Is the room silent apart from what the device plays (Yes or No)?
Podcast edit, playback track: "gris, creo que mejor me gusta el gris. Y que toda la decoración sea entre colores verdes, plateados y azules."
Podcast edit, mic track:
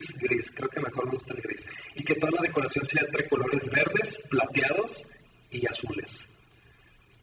Yes